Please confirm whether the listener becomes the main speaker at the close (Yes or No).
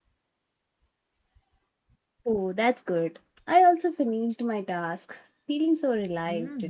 Yes